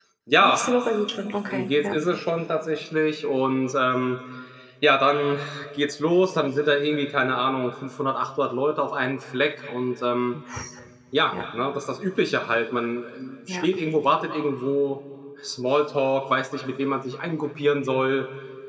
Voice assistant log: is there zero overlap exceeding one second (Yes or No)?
Yes